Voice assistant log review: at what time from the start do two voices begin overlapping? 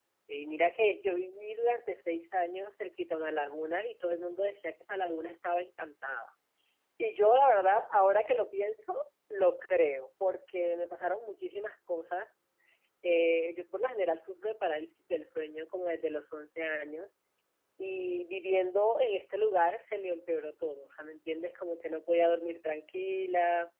none

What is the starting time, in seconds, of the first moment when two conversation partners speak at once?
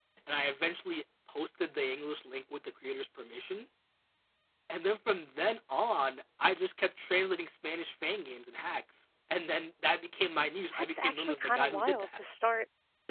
10.7 s

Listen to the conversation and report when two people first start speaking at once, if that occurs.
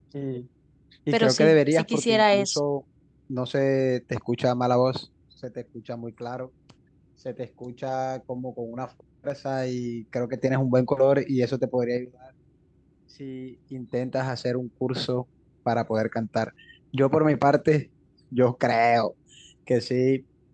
1.1 s

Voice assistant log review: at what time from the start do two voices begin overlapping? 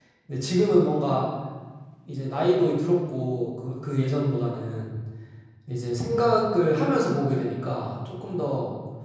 none

